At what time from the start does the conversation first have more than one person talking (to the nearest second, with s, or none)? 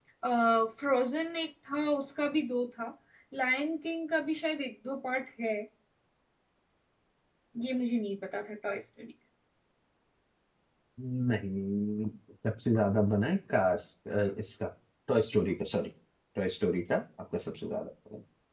none